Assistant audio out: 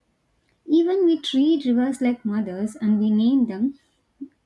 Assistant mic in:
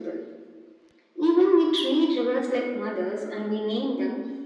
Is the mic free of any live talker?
Yes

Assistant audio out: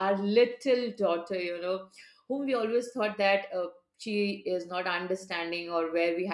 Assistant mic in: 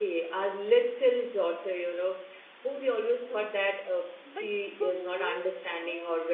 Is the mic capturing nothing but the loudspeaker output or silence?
No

